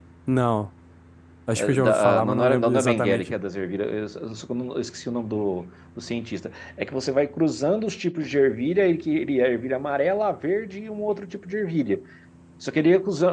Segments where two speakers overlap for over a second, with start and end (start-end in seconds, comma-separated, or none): 1.6-3.3